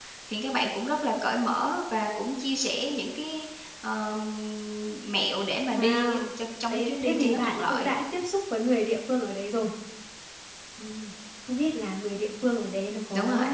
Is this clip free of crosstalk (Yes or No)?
No